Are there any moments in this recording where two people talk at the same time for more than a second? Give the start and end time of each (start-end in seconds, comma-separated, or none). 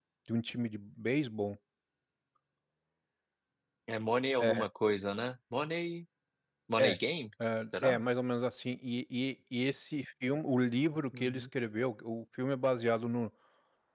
none